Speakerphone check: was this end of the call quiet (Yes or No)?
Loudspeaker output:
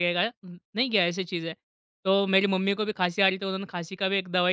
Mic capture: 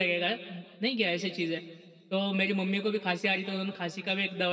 Yes